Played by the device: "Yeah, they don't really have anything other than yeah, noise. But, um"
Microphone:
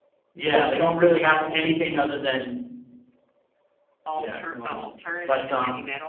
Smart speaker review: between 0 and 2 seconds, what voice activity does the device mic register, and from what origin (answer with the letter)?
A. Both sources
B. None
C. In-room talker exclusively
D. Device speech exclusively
D